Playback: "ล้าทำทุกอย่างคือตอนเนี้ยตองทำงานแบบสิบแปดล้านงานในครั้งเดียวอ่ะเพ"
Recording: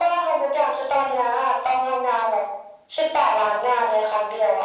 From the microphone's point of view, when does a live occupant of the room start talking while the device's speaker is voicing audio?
none

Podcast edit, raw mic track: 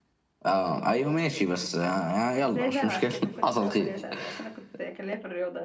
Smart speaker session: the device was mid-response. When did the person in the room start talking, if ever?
2 s

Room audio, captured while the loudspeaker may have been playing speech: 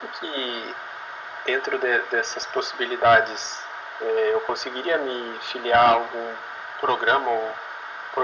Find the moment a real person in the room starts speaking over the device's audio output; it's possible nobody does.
none

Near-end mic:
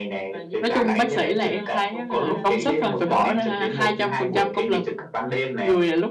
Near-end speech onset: 1 s

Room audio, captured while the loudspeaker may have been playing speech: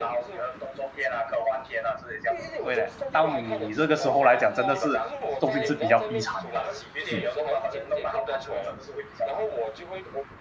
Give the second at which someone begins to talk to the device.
3 s

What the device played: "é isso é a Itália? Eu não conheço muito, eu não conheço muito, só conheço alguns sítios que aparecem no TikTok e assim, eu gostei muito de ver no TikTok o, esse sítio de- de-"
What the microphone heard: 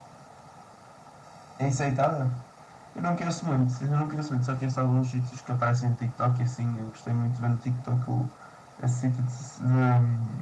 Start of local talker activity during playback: none

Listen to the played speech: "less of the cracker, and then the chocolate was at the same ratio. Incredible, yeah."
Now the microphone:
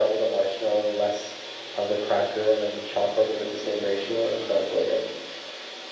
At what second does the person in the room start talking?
none

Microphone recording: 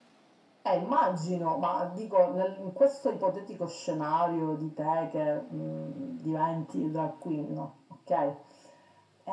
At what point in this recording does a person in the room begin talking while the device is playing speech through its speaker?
none

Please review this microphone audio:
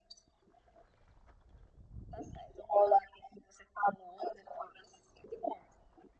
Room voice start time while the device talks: none

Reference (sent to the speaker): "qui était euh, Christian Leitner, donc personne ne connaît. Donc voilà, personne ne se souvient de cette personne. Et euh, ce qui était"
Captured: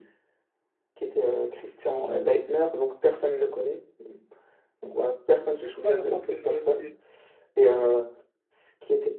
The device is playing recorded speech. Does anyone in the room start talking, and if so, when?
6 s

